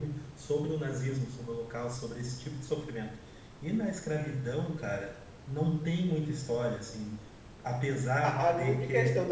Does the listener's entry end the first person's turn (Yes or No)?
Yes